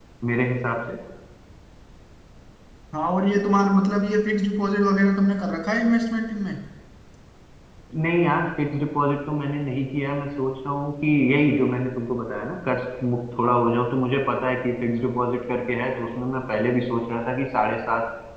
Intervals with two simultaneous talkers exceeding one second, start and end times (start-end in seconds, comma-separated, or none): none